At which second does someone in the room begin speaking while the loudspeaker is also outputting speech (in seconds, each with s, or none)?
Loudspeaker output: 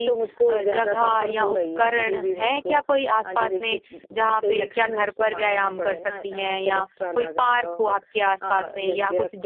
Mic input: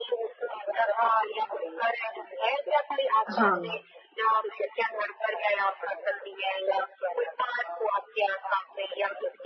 3.4 s